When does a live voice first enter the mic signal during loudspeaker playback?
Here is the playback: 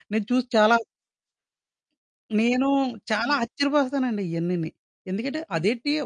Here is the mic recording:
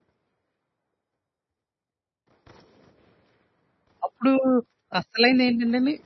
4.1 s

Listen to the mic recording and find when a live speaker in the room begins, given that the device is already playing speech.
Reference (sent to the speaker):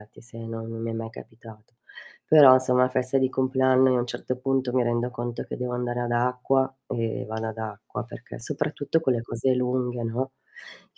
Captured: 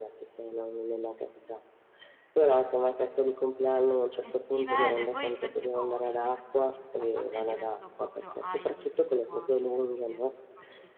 4.2 s

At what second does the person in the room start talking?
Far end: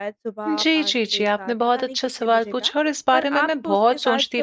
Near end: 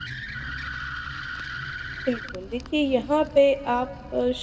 2.1 s

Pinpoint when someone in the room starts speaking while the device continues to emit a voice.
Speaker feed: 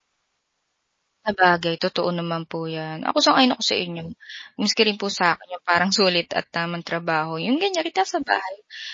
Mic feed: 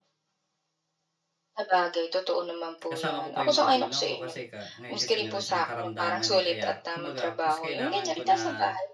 2.9 s

